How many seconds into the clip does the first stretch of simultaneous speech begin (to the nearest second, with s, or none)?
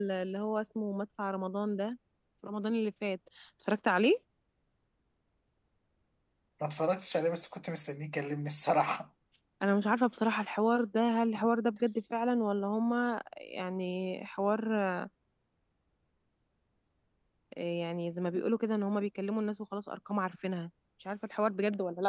none